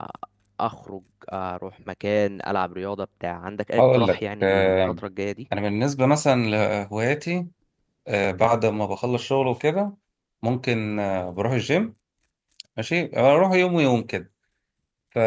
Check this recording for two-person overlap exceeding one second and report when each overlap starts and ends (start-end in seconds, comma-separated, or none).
3.8-5.0